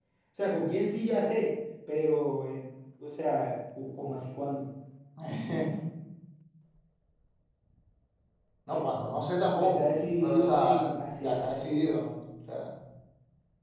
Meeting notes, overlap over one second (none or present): present